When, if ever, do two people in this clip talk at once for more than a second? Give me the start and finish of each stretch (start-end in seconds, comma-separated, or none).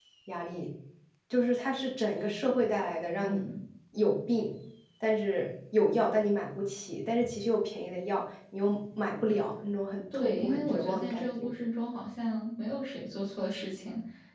10.1-11.5